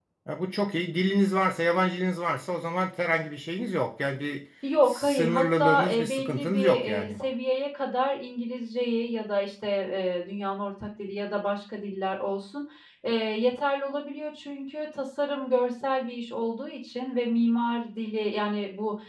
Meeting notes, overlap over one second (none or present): present